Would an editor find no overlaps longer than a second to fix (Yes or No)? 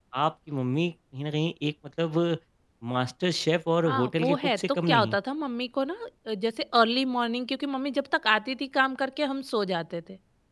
No